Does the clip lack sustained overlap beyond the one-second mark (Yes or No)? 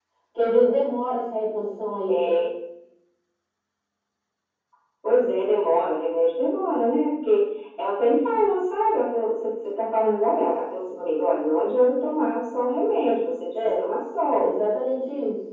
Yes